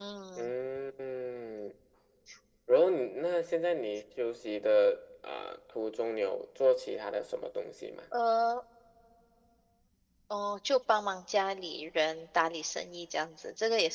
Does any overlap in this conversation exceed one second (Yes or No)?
No